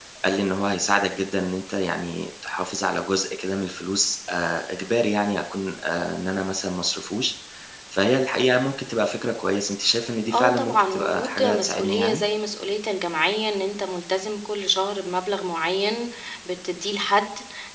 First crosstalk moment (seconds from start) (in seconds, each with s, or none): 10.3 s